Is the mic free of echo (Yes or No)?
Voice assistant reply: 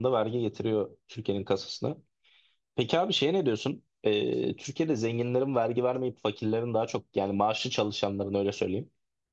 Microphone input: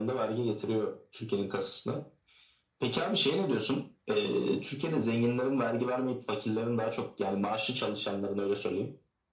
No